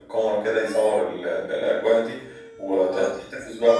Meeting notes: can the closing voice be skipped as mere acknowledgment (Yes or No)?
Yes